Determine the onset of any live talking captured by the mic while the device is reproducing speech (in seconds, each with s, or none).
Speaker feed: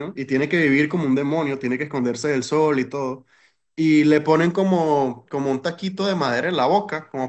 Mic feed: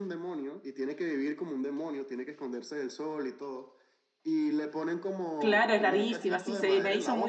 5.4 s